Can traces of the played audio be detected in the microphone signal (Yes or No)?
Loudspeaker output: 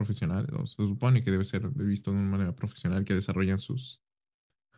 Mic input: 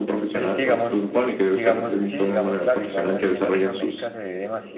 Yes